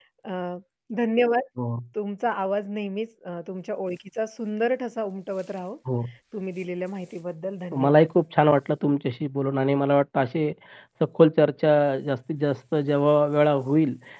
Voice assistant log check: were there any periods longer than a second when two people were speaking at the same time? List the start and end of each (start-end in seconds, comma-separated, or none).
none